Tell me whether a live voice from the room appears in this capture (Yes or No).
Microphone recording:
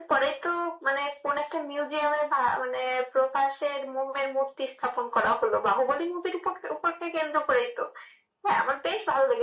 No